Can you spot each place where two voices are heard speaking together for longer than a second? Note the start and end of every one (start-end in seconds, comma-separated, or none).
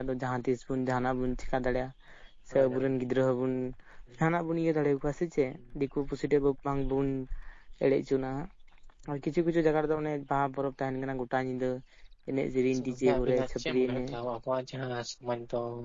12.7-14.1